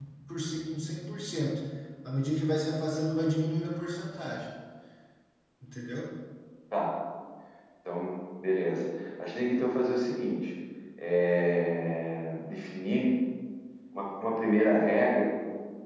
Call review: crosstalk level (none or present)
none